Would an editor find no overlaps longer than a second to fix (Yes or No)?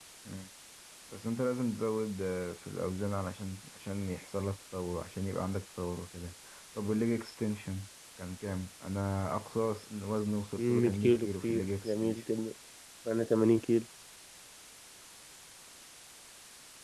No